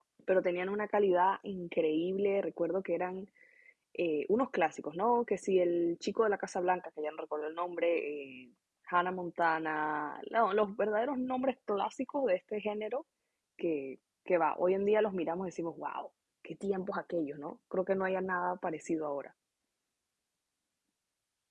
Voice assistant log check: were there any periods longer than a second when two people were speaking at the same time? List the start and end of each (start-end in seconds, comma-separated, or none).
none